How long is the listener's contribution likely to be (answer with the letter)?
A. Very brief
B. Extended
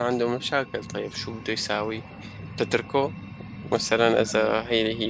A